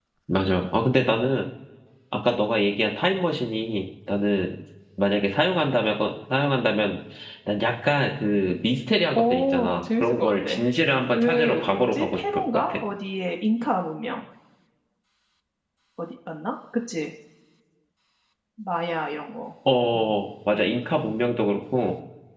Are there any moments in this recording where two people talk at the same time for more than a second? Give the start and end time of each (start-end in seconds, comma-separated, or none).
9.1-10.6, 11.1-12.8